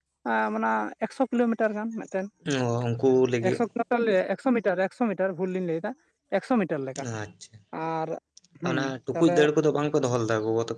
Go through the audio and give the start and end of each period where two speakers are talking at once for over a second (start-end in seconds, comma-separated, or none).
none